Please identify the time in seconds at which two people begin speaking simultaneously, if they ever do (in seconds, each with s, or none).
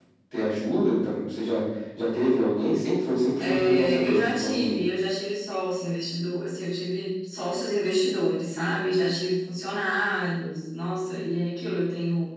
3.4 s